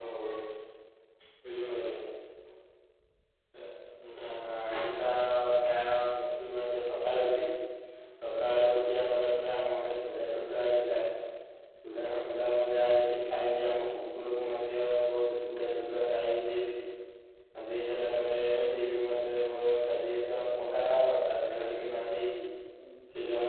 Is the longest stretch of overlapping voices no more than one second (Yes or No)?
Yes